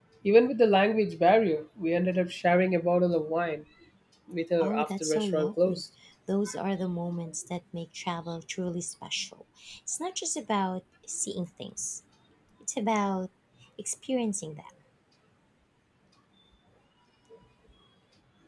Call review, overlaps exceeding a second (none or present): present